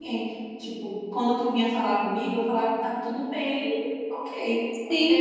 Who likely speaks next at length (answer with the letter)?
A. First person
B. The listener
B